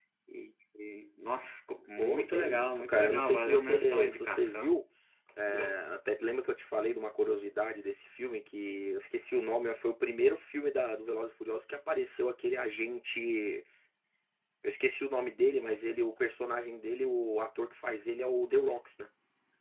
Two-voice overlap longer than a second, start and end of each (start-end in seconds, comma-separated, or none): 2.0-4.7